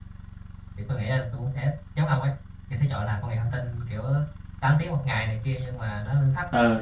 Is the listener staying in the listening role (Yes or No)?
Yes